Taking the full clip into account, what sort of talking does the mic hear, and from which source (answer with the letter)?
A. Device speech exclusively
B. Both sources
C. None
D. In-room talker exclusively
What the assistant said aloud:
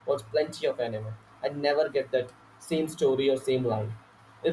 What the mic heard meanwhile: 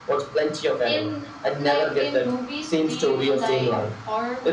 B